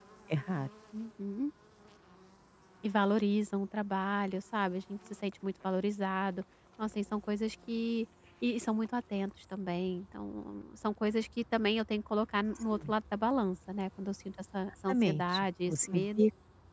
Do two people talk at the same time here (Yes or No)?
Yes